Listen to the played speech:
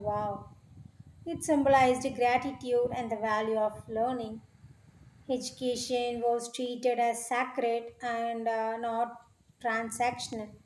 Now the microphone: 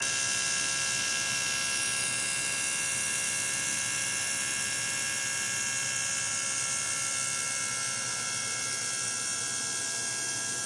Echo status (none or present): none